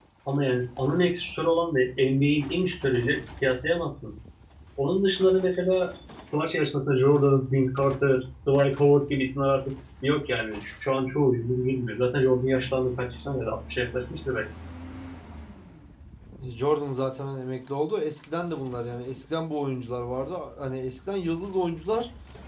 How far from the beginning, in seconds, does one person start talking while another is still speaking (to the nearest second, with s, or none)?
none